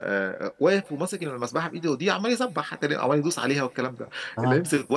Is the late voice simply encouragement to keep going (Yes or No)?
Yes